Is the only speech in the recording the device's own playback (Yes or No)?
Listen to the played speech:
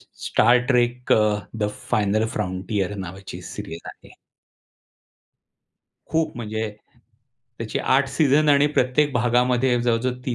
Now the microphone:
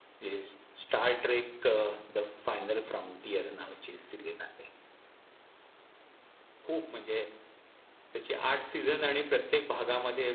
No